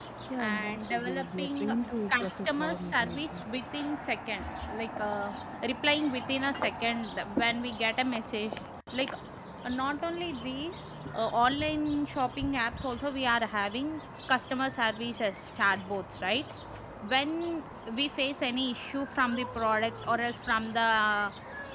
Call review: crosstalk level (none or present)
present